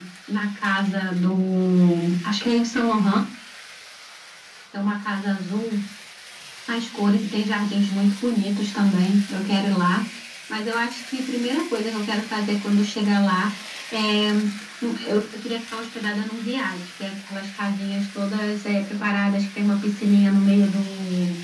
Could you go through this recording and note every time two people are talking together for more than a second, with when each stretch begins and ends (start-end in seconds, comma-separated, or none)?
none